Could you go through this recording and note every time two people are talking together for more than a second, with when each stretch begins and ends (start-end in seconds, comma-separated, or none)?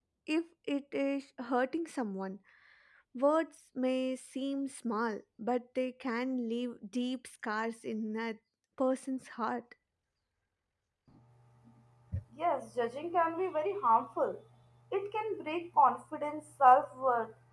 none